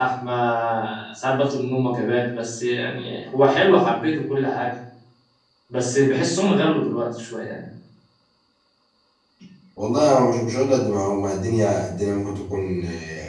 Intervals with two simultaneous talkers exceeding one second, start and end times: none

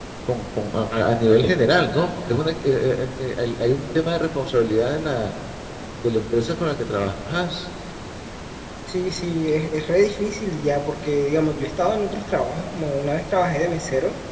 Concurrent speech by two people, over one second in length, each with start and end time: none

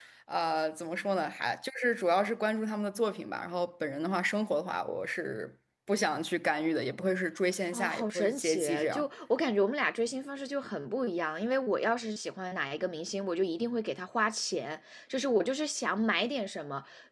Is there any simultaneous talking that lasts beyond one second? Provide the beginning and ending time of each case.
7.7-9.0

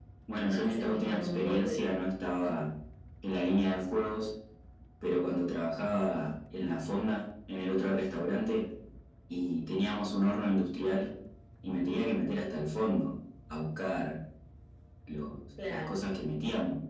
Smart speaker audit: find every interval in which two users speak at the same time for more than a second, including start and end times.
0.5-1.9

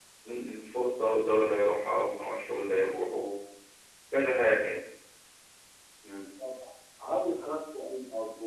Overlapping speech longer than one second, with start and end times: none

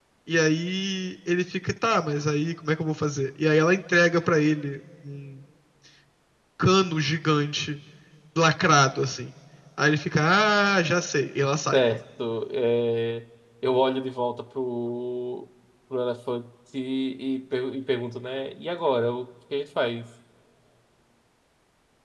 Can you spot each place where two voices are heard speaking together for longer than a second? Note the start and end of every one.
none

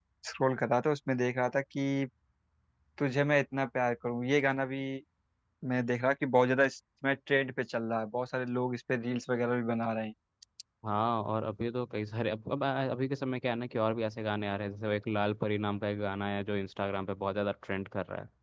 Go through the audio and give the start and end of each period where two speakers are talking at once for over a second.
none

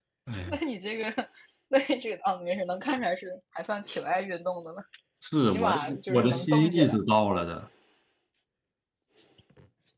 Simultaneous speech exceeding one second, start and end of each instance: 5.4-7.0

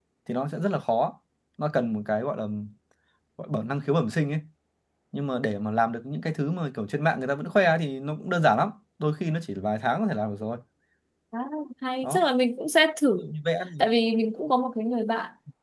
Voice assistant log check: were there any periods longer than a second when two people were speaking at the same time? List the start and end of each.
none

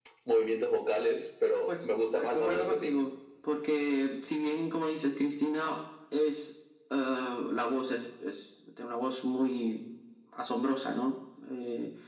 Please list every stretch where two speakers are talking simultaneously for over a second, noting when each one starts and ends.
1.7-3.0

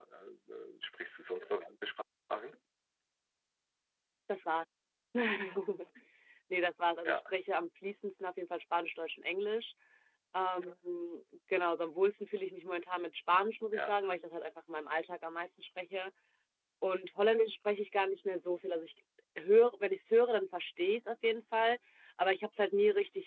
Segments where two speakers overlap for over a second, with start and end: none

